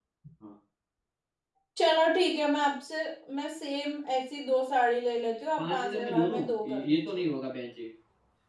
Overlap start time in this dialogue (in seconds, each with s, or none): 5.6 s